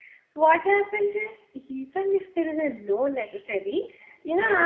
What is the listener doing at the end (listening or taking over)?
listening